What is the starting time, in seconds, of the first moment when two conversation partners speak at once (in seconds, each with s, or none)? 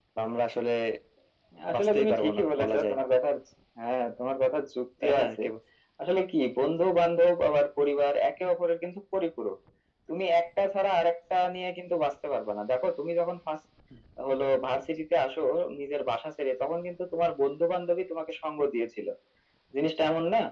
1.7 s